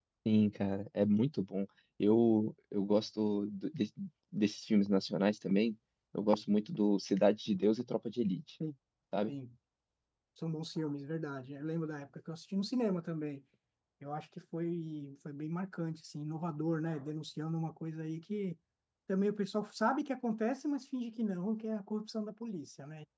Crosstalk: none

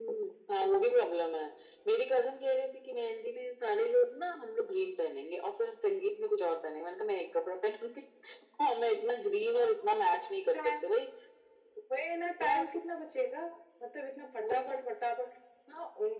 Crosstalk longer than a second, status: none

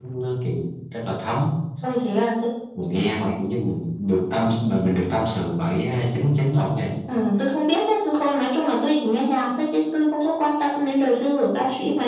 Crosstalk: none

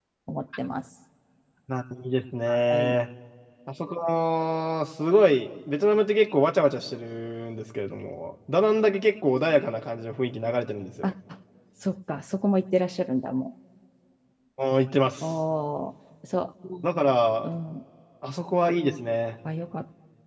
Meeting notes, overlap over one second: none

